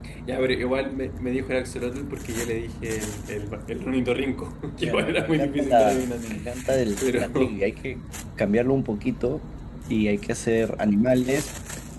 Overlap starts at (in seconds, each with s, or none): 4.8 s